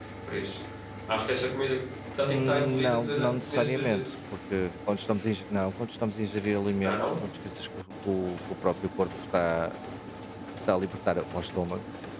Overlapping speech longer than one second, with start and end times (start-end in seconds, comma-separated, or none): 2.2-4.0